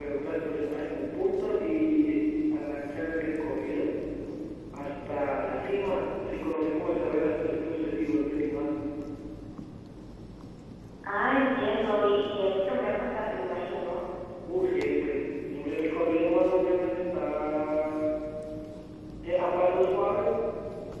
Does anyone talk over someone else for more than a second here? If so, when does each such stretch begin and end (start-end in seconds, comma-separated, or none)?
none